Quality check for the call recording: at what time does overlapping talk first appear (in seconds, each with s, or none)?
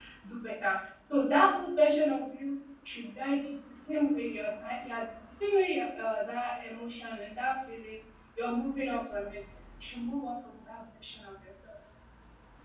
none